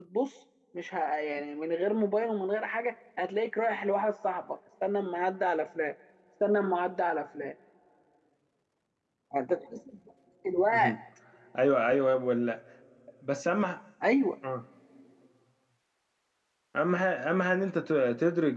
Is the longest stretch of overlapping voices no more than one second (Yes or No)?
Yes